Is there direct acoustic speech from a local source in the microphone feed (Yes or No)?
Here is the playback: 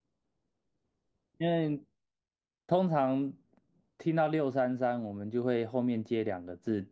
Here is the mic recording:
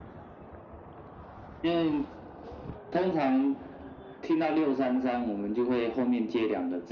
No